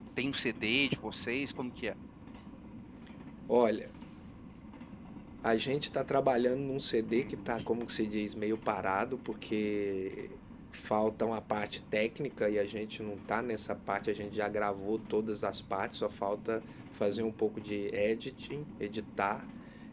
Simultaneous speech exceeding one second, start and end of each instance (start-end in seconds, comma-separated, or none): none